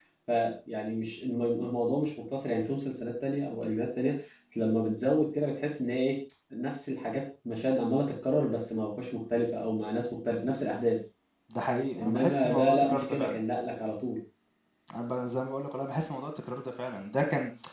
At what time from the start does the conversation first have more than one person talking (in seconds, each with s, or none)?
12.0 s